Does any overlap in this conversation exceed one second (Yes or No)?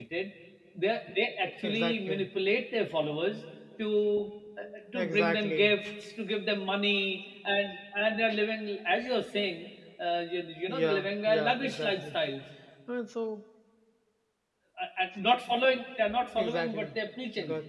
Yes